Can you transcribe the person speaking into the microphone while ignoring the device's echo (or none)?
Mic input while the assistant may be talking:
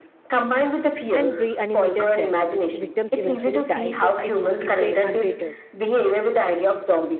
and reanimated dead. Victims eventually die if, if, if they untreated.